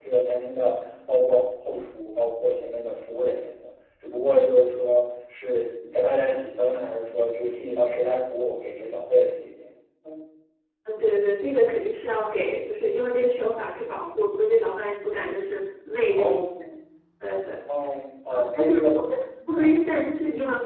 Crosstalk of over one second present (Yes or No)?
Yes